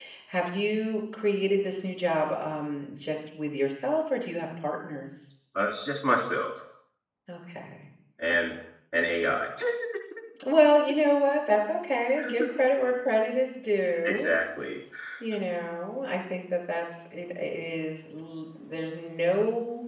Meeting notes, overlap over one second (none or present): none